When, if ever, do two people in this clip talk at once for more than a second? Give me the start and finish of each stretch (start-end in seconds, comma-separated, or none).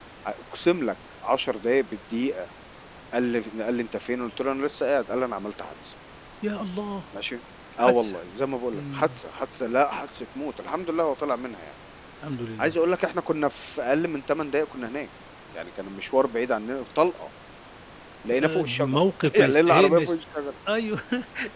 18.3-20.2